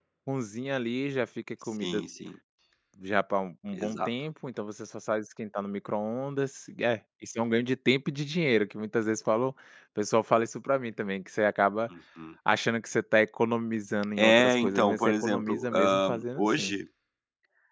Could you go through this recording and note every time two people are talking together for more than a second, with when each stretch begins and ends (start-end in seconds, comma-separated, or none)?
14.2-16.7